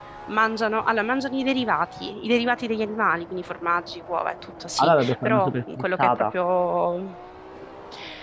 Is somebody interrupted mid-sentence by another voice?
Yes, from 4.8 s

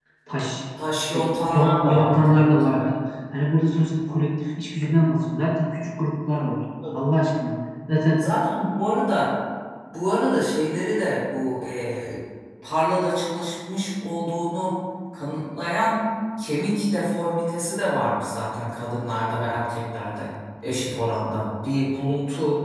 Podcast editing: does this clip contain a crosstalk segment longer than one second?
Yes, from 1.1 s

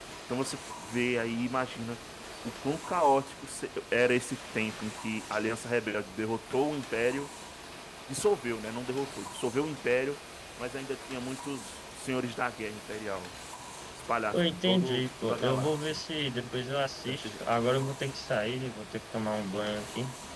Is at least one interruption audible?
Yes, from 14.3 s

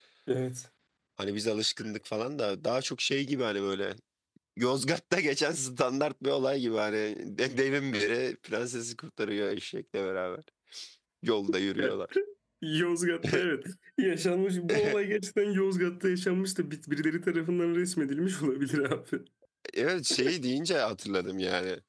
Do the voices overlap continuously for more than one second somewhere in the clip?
No

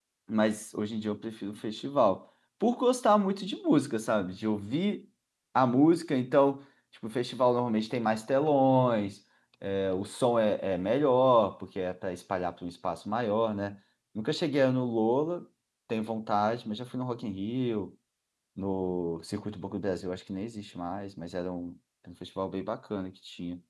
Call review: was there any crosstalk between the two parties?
No

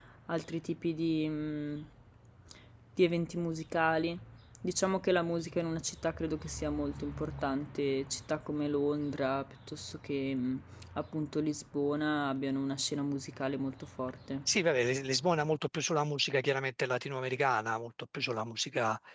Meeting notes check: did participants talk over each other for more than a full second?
No

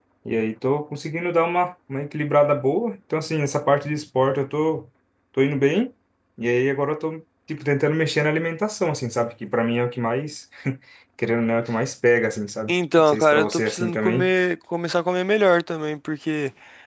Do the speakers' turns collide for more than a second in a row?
Yes, from 12.7 s

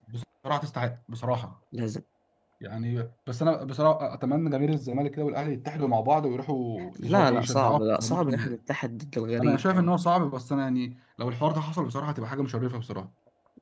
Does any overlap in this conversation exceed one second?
Yes, from 7.0 s

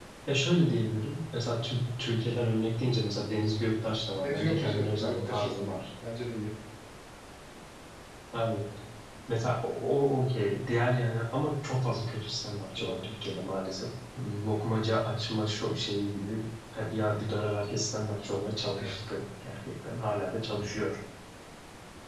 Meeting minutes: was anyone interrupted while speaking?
Yes, from 4.2 s

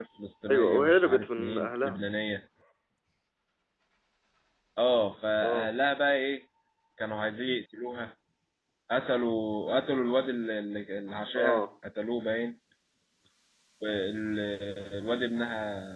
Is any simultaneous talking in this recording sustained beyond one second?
Yes, from 0.5 s

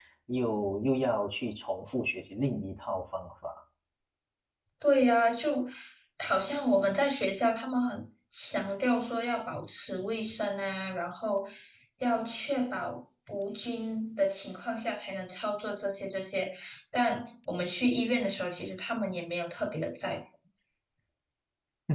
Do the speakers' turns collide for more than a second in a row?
No

